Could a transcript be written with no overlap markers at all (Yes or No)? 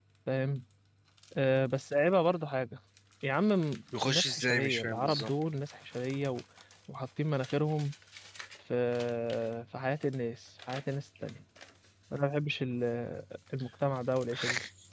No